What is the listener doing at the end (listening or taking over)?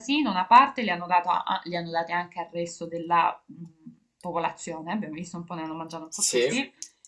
listening